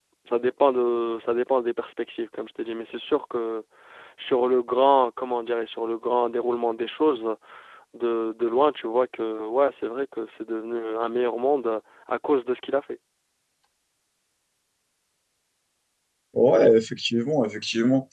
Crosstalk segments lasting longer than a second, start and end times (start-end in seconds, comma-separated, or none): none